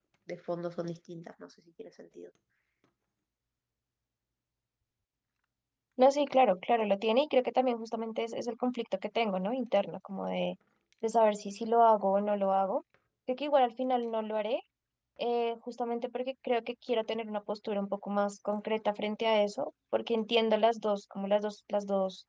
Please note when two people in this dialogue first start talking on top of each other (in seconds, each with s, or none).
none